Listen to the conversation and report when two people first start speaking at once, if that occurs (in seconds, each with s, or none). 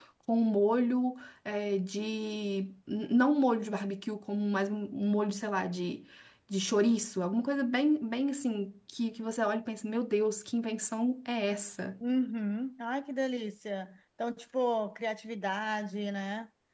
none